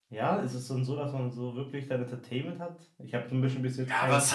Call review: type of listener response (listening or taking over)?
taking over